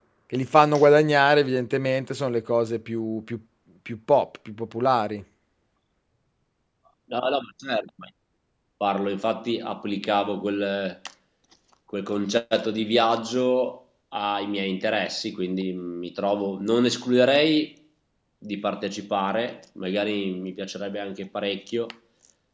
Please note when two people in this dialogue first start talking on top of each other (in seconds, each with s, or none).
none